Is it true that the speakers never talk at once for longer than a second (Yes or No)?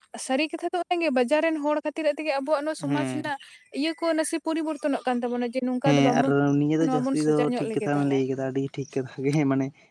No